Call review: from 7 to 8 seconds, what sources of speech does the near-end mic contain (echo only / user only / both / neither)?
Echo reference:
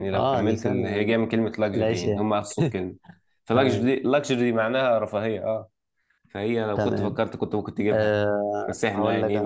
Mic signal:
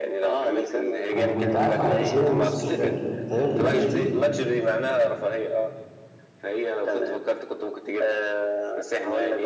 echo only